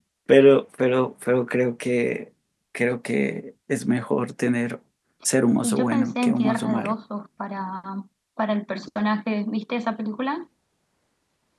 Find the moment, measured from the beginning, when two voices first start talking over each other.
5.6 s

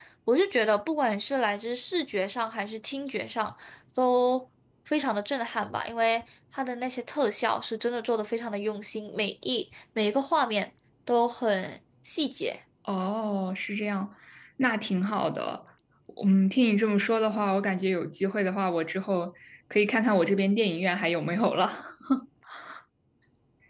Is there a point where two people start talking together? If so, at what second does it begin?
none

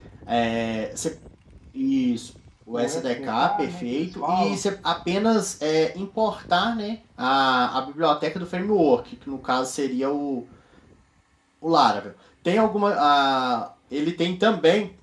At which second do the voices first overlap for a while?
2.7 s

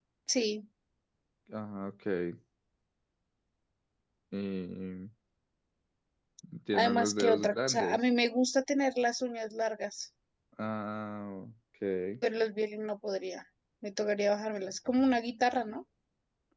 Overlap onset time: 6.7 s

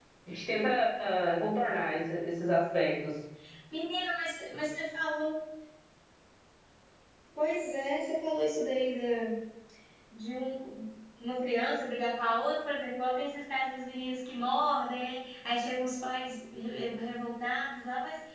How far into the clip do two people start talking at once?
none

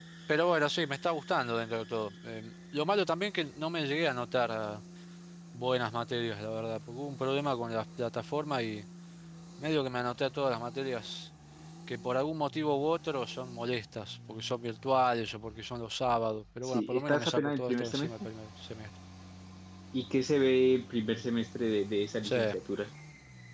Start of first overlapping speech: 16.6 s

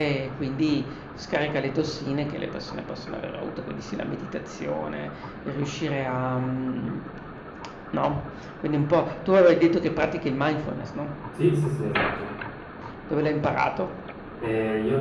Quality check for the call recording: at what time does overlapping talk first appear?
none

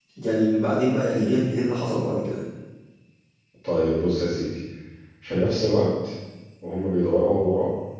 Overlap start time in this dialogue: none

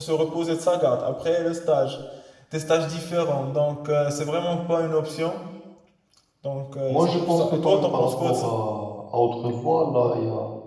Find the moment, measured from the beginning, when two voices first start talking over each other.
6.9 s

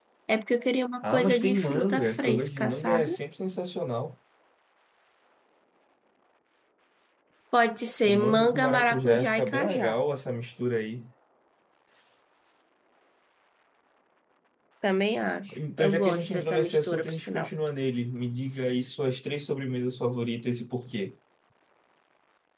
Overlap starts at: 1.0 s

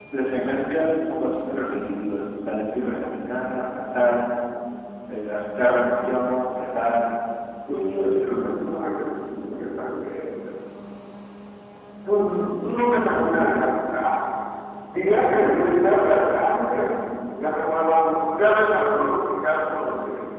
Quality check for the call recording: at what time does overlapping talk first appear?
7.7 s

